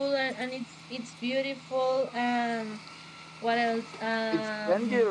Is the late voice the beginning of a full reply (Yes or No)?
Yes